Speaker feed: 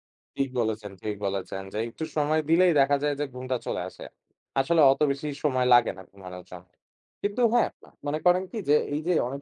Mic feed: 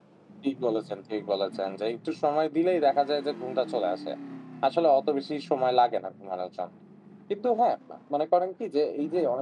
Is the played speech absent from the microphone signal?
No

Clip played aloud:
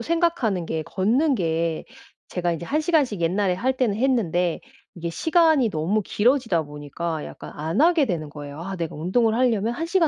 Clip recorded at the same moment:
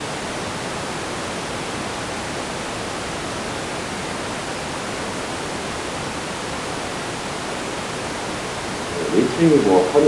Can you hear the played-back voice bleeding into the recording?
No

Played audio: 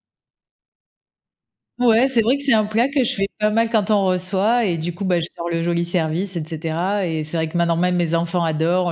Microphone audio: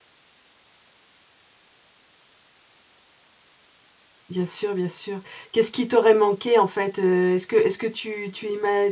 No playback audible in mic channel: Yes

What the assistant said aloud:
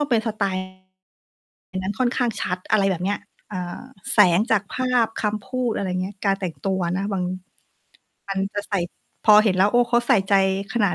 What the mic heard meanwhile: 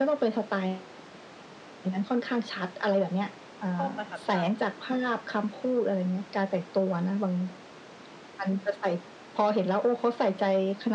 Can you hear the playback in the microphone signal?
Yes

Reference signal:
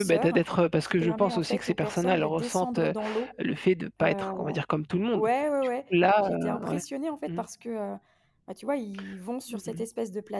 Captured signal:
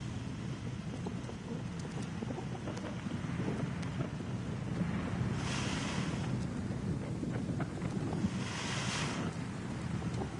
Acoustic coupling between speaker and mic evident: No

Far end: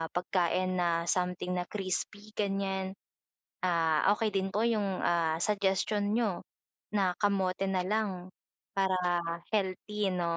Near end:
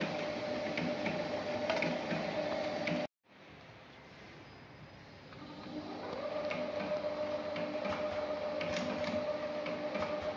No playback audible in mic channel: Yes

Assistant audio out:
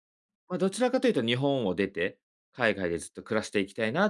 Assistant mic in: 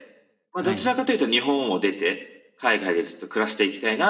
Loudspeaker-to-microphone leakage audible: Yes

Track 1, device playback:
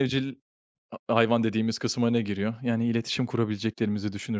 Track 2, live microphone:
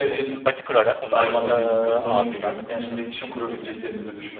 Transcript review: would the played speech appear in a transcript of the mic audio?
Yes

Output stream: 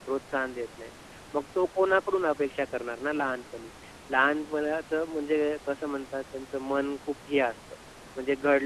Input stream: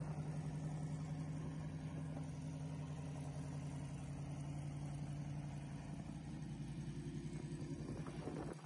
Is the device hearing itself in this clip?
No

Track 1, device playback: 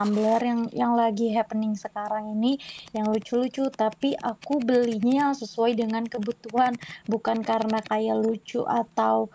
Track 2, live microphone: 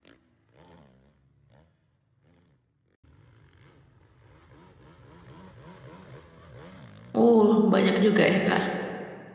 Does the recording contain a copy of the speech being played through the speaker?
No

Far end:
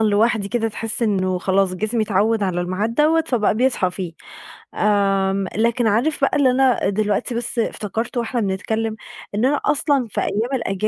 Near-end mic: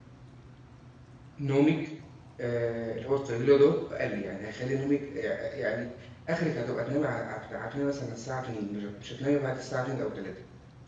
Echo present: No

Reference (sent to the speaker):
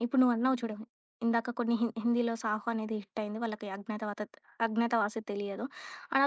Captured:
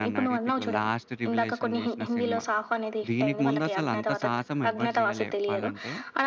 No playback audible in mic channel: No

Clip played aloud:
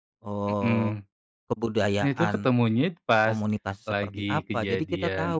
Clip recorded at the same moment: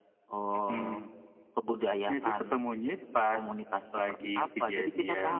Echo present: Yes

